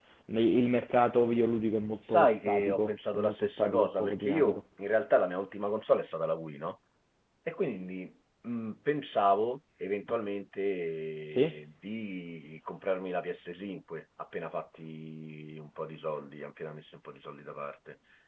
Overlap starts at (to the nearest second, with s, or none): 2 s